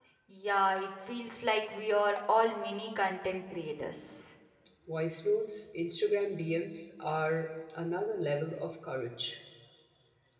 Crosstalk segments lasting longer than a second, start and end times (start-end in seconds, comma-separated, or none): none